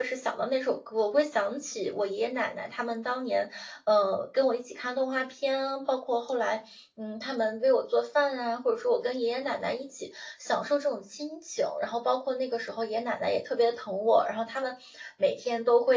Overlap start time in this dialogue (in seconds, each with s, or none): none